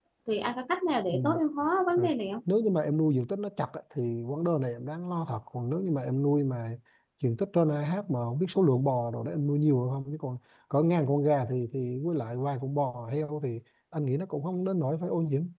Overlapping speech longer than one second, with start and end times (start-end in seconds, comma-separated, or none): none